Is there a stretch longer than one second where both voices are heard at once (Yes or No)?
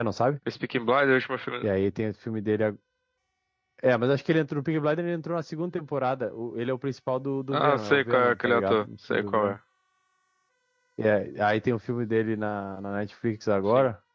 Yes